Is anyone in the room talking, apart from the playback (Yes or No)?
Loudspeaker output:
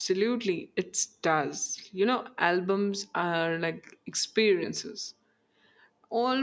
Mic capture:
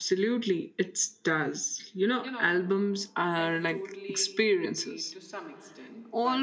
Yes